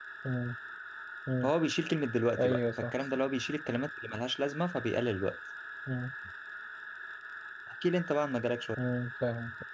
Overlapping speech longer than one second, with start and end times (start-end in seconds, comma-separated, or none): none